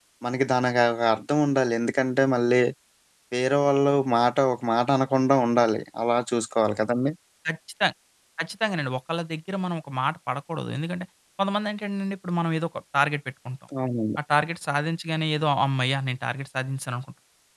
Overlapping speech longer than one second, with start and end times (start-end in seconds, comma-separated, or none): none